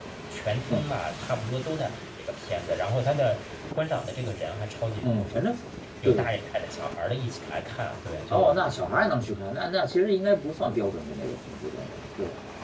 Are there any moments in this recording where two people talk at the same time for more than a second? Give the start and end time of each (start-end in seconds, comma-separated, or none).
none